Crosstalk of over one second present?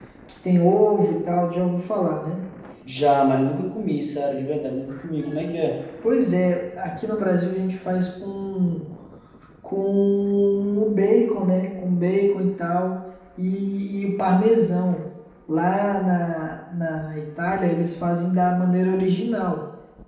No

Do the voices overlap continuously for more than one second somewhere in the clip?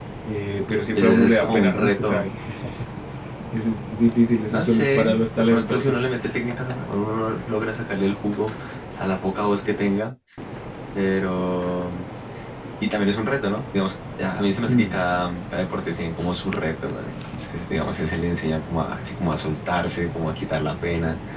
Yes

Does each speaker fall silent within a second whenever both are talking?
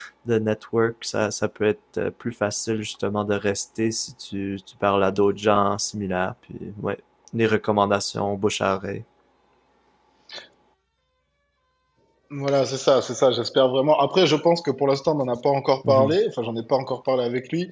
Yes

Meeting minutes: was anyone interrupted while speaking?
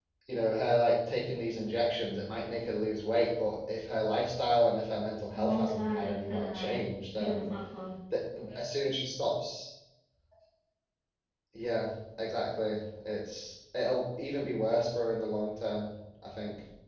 Yes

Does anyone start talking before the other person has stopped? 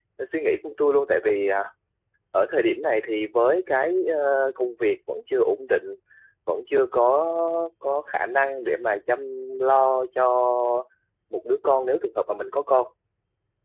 No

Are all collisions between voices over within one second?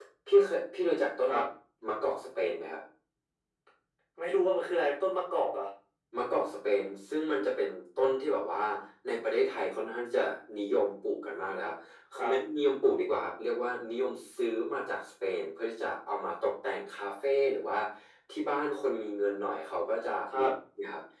Yes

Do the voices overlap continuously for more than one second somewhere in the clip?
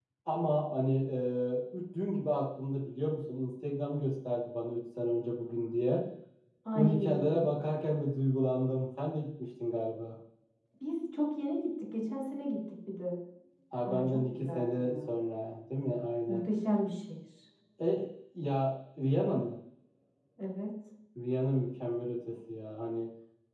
Yes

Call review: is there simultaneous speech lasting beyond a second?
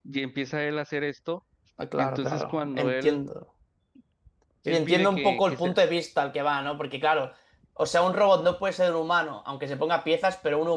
Yes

